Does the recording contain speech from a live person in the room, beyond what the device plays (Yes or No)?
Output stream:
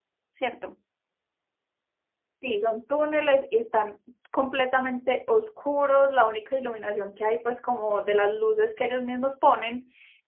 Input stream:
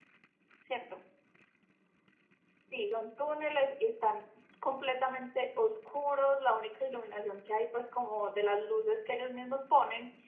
No